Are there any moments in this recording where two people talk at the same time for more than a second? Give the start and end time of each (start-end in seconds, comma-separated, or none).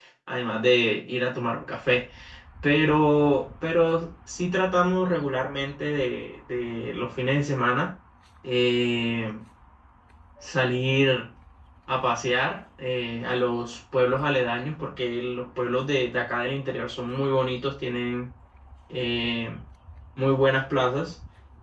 none